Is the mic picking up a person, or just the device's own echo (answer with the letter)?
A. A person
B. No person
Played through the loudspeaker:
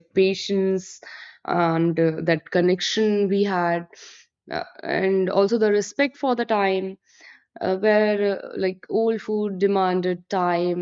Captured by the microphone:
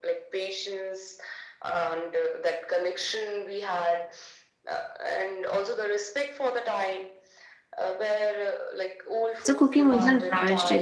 A